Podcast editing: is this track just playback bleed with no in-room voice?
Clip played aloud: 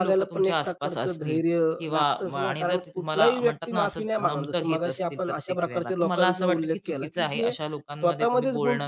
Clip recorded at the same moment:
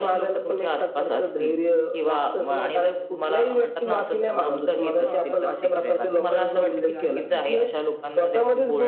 No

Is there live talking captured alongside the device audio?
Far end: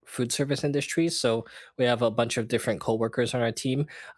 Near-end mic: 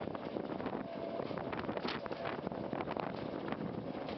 No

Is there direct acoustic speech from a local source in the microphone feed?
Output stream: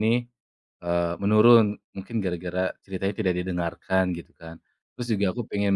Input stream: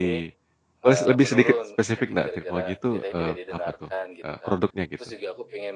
Yes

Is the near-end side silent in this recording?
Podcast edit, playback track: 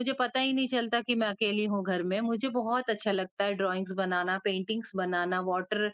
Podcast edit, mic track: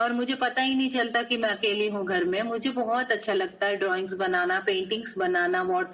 Yes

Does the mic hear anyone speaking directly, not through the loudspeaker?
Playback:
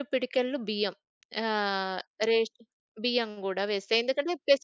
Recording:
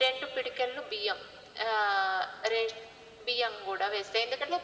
No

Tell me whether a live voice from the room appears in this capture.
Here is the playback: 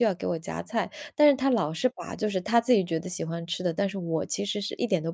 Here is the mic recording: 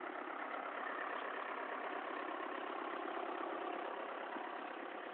No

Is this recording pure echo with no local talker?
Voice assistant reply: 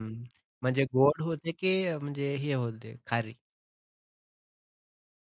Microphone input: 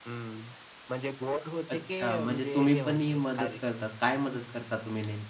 No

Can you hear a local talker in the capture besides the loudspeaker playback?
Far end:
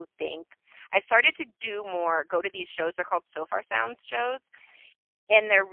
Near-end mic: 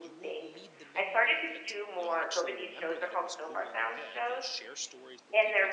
Yes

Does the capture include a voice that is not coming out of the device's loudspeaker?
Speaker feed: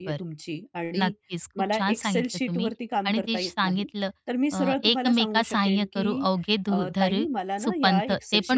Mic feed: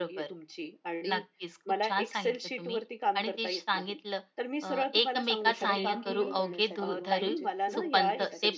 Yes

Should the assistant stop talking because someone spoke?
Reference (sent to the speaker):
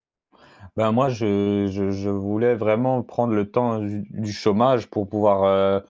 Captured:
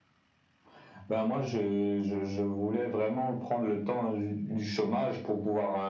No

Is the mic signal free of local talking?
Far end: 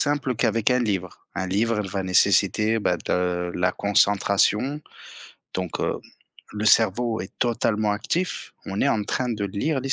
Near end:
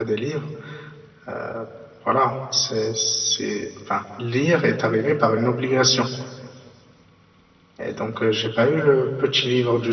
No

